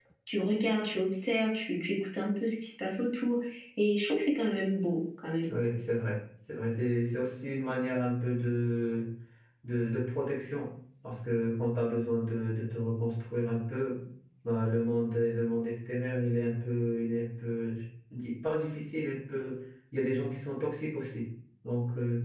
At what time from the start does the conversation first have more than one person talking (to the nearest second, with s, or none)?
none